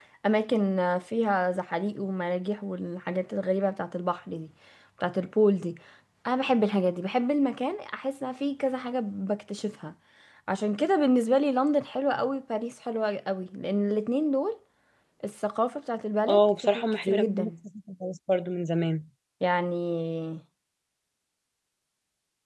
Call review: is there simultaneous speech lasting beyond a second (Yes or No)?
Yes